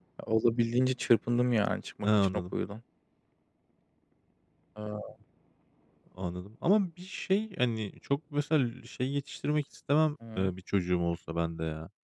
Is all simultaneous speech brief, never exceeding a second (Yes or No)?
Yes